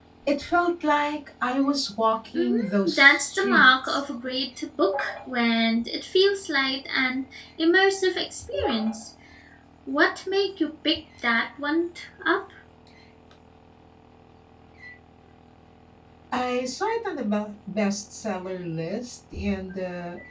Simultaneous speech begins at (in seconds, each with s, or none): 2.3 s